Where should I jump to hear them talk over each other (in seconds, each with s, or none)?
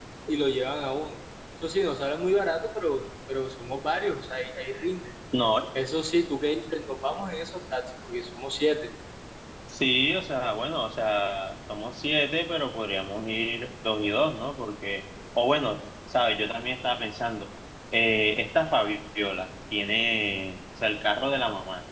none